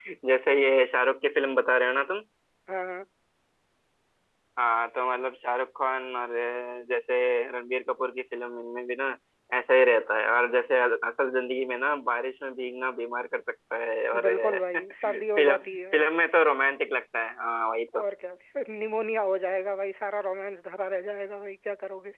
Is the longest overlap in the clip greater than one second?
Yes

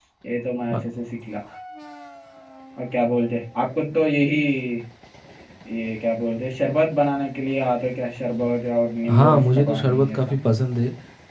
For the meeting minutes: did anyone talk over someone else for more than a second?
Yes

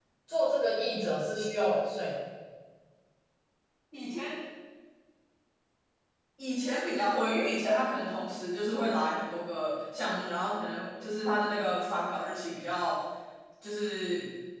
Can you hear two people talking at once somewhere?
No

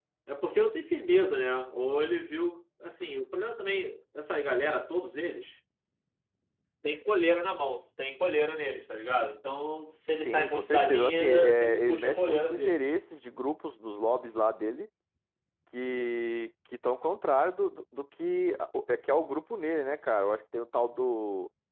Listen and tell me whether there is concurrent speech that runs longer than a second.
Yes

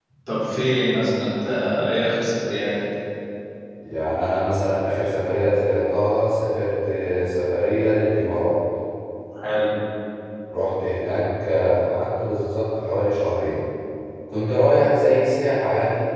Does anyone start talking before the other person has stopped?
No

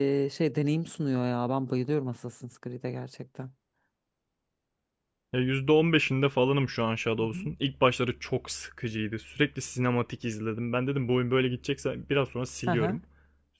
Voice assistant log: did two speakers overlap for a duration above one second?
No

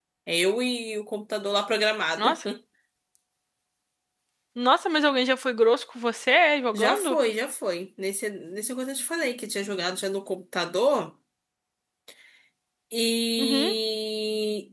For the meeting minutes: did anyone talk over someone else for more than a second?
No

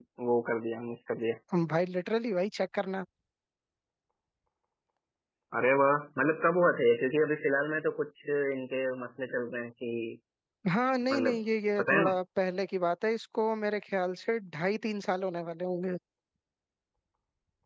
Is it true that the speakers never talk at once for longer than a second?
Yes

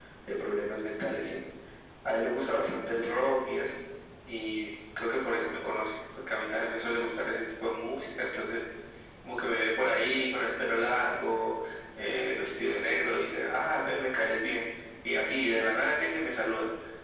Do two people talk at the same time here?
No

